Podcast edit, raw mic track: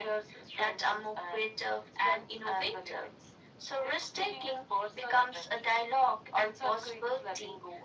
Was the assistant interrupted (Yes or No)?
No